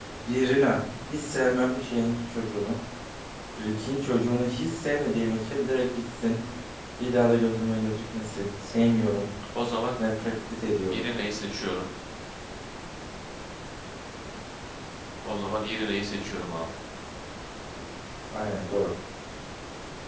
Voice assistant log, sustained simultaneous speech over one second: none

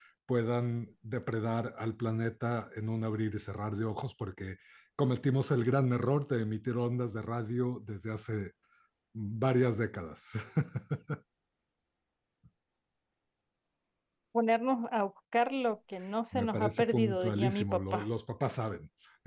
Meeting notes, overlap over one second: present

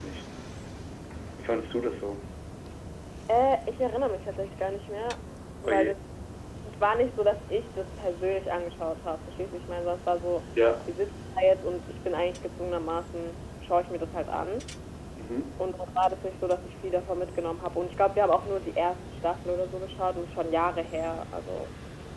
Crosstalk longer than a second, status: none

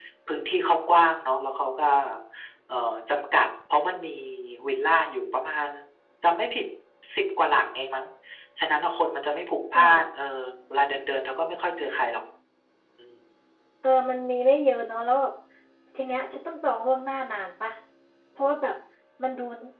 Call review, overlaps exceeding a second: none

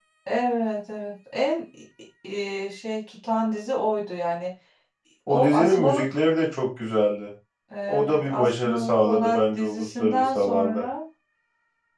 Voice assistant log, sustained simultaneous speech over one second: present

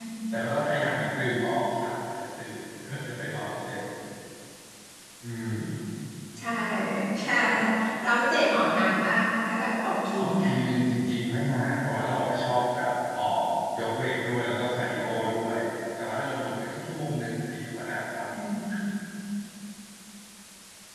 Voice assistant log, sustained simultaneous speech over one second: none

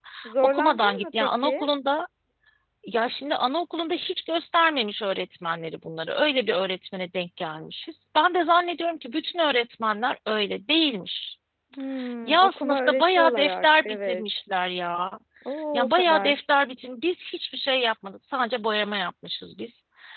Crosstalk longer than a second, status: present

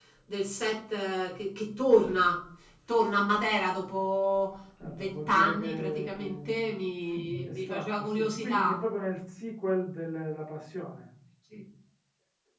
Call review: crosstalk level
present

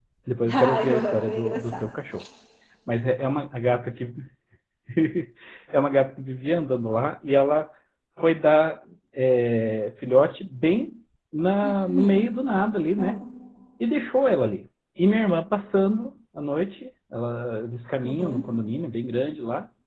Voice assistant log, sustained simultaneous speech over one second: present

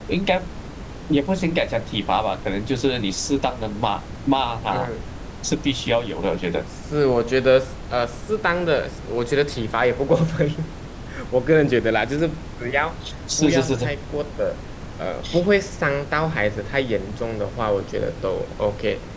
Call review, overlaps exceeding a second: none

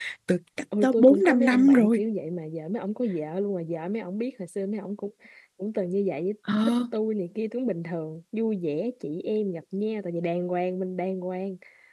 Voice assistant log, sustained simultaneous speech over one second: present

